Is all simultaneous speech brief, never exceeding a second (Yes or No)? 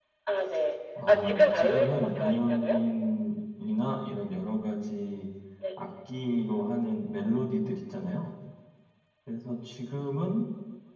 No